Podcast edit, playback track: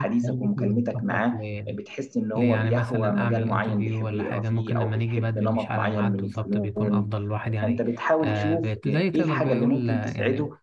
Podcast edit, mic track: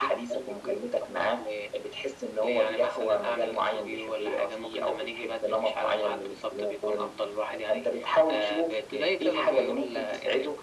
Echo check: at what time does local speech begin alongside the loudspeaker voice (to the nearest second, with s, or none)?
none